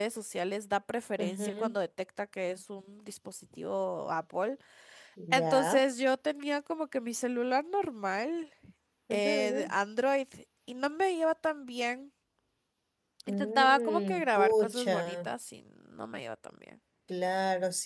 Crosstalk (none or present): present